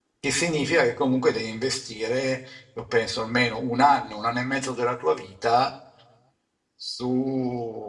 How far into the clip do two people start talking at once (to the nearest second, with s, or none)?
none